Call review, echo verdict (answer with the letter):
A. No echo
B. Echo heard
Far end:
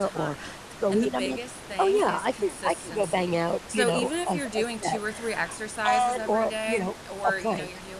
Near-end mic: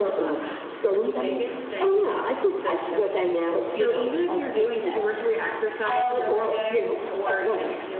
B